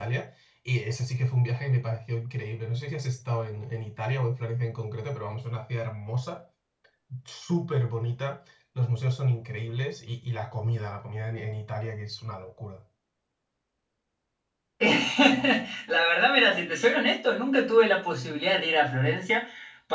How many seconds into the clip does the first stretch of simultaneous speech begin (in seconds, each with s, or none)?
none